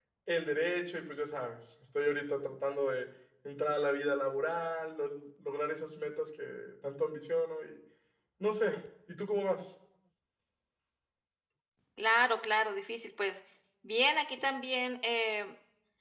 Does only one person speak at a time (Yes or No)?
Yes